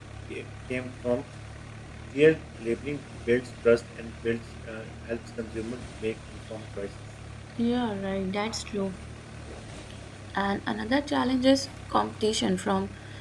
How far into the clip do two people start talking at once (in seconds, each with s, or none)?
none